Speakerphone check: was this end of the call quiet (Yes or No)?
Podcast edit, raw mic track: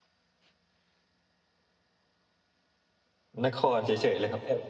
No